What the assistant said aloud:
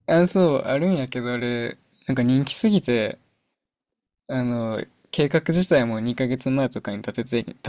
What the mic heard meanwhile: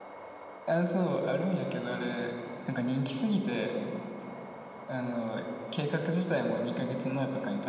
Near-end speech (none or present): none